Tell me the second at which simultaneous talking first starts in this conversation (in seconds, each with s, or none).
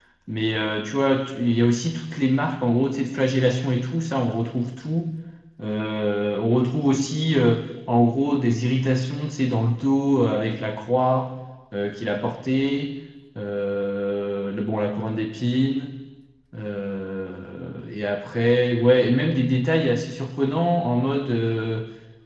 none